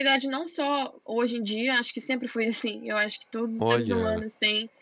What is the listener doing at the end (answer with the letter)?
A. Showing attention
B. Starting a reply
A